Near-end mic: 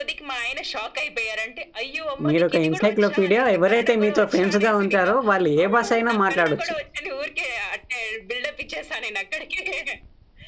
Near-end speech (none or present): present